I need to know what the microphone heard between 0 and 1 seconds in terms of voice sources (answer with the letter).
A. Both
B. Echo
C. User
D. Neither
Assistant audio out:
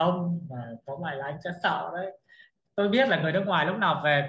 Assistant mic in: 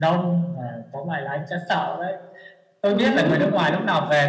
B